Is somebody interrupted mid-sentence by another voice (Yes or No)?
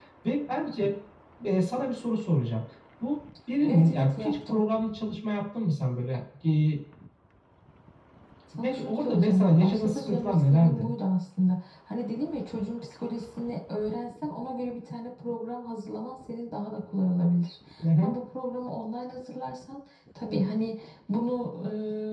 Yes